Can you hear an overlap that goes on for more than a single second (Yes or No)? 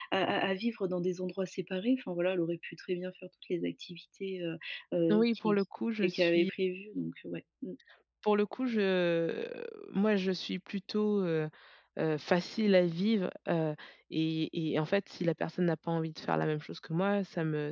No